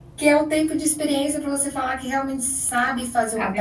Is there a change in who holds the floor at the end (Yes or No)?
No